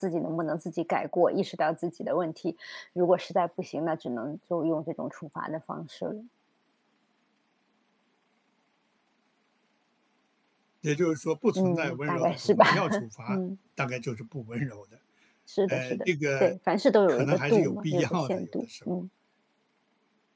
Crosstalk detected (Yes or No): Yes